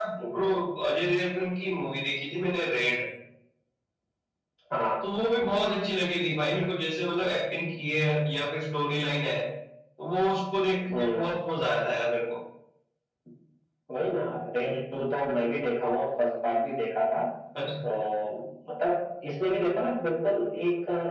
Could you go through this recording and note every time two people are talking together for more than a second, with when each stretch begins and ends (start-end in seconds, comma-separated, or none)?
none